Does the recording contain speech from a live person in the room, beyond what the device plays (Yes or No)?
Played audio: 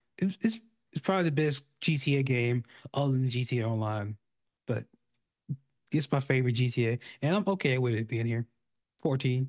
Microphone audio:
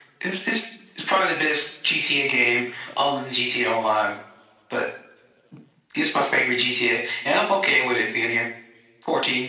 No